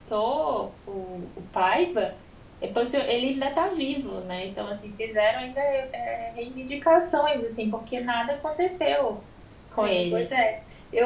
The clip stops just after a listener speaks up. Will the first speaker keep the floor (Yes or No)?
No